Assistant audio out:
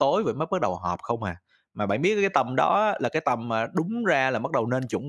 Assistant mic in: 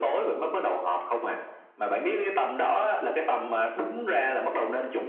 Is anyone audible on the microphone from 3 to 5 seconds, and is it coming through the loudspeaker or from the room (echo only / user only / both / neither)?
echo only